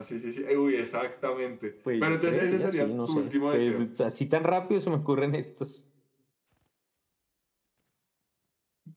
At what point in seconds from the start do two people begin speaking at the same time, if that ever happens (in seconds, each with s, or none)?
1.9 s